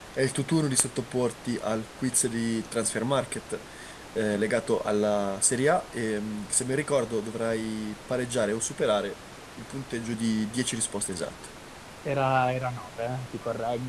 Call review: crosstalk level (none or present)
none